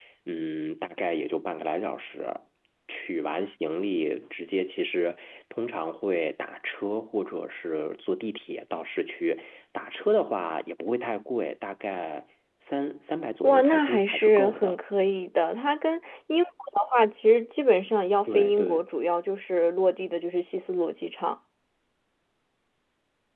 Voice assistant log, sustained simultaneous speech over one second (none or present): present